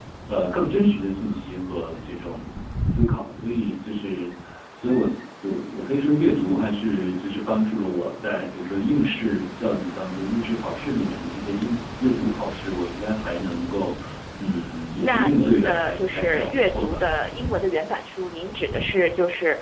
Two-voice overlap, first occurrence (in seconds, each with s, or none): 15.0 s